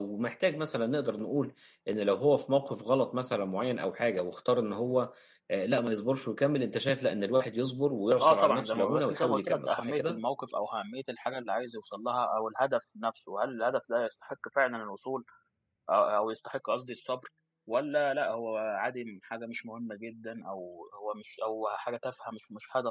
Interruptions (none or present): present